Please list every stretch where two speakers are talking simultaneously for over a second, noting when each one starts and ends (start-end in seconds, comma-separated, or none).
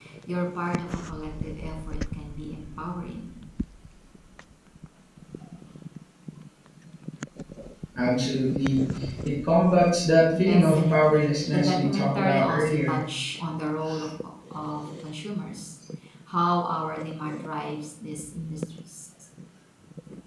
10.4-13.0